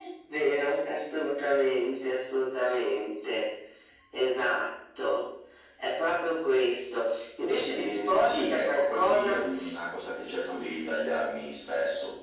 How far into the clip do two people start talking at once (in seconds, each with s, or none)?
7.7 s